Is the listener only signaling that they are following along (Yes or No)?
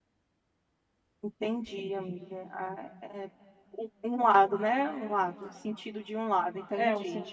No